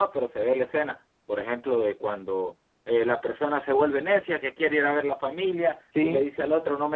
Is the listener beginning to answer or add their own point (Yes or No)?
No